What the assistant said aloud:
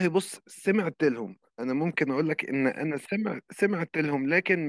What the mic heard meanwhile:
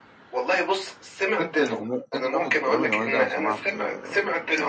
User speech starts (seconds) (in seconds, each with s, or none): 1.4 s